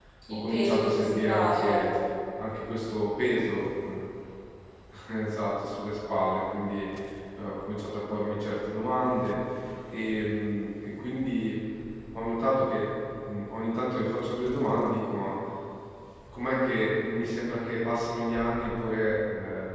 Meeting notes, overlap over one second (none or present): present